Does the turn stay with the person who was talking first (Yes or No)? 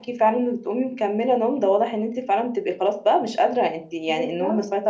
Yes